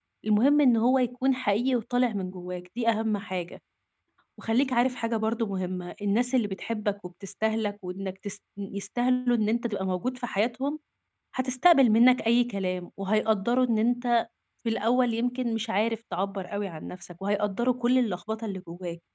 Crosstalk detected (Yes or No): No